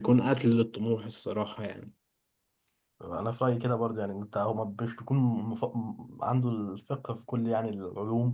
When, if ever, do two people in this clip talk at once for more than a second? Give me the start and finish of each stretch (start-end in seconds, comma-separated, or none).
none